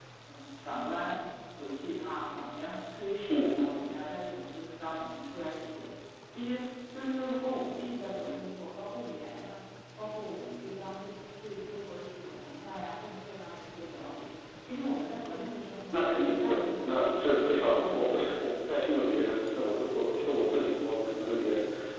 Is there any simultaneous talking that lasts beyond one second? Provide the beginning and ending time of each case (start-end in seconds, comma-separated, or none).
15.9-18.5